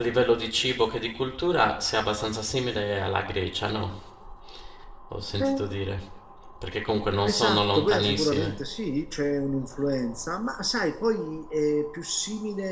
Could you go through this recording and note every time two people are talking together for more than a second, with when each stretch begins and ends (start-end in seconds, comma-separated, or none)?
7.3-8.5